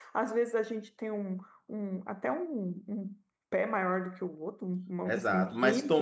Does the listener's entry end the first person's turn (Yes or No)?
Yes